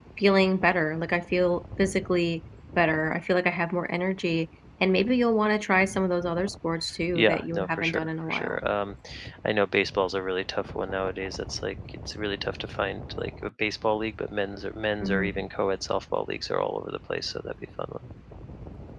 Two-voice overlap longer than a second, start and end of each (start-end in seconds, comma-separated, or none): 7.2-8.6